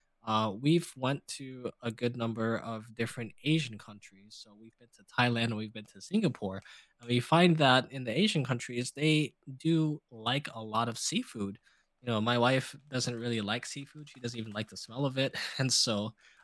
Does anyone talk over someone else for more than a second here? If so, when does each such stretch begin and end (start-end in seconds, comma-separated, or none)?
none